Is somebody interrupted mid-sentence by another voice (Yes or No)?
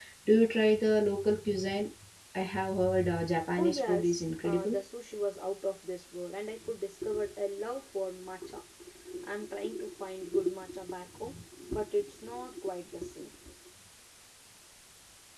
Yes